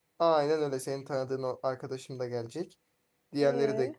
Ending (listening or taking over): listening